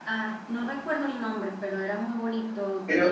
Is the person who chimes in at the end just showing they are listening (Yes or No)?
Yes